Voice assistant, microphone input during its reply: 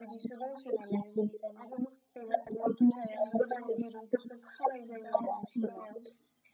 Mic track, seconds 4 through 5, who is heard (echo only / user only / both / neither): echo only